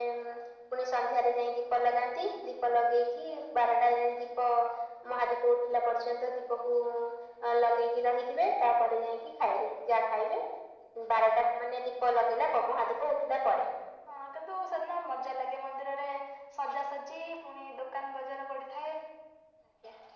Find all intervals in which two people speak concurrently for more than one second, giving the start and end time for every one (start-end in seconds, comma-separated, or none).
none